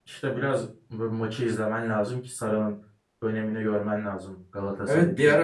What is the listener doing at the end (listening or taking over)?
taking over